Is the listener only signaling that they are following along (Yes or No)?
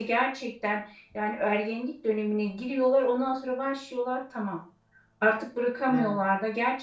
Yes